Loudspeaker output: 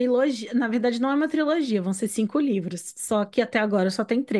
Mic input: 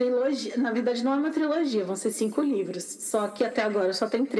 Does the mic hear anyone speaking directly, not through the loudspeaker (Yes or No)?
No